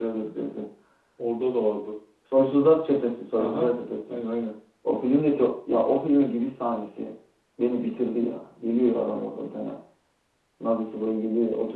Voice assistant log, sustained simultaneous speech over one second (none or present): none